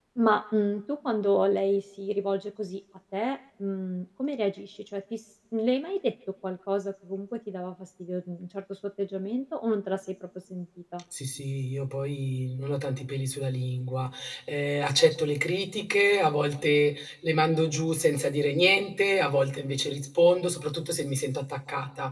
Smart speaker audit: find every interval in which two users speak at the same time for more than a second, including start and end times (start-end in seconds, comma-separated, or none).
none